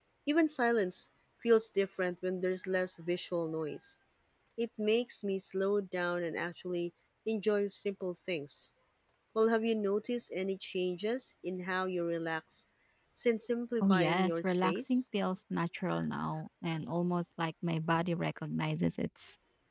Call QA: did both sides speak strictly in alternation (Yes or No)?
No